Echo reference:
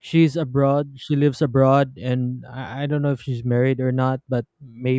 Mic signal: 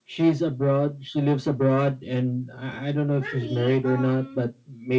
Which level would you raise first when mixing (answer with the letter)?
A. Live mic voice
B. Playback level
A